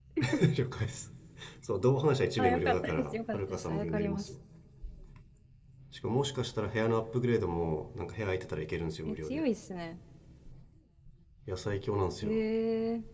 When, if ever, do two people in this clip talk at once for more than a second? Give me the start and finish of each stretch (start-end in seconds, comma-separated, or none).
2.4-4.3